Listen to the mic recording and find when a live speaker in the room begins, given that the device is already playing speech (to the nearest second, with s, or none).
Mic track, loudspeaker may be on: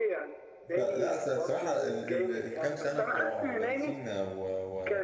1 s